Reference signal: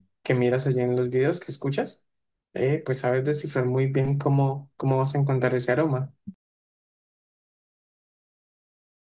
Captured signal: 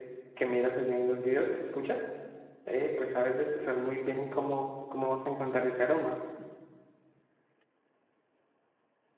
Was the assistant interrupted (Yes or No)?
No